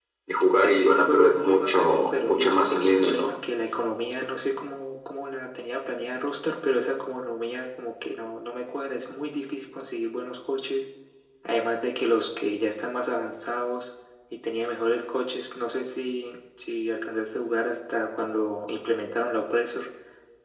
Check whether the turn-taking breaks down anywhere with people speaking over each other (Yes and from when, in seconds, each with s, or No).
Yes, from 0.6 s